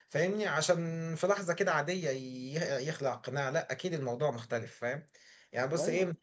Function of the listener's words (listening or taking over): listening